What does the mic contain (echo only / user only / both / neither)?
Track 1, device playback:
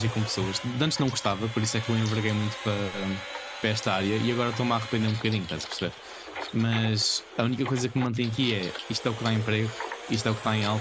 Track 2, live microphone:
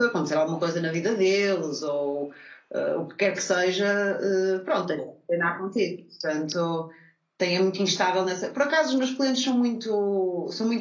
user only